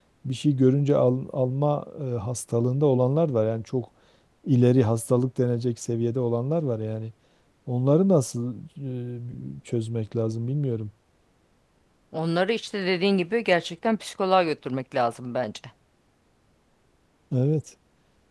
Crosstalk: none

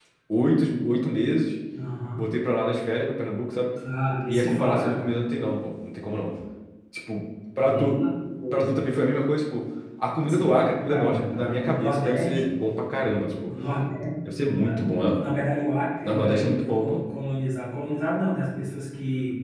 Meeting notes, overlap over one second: present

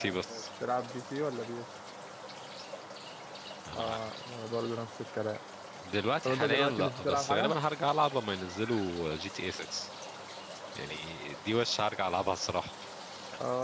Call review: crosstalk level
present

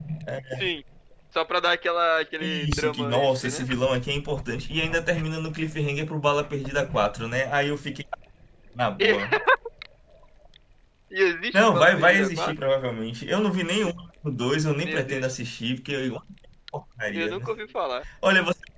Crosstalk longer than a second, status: present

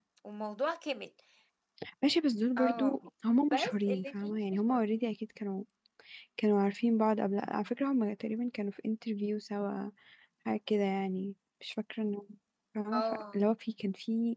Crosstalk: present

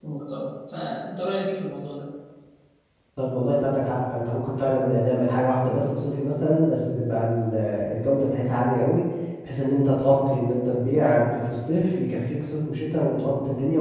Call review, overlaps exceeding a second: none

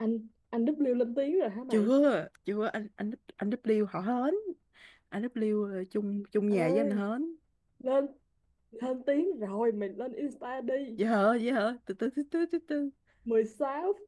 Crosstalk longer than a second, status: none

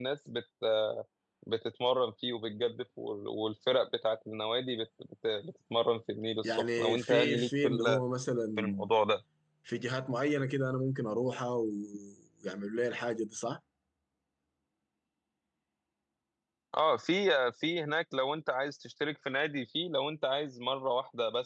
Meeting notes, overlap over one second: present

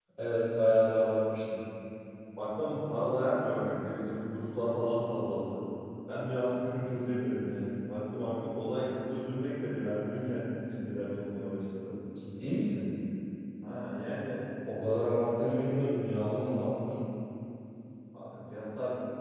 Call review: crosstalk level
none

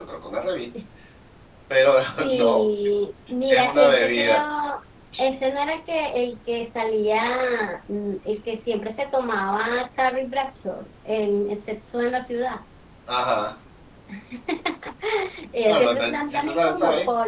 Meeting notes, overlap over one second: present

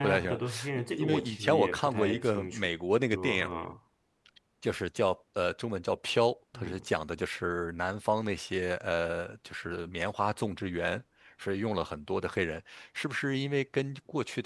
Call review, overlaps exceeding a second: present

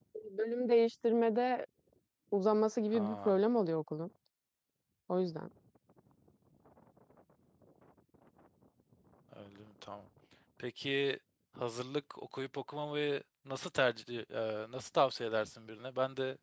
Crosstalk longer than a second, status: none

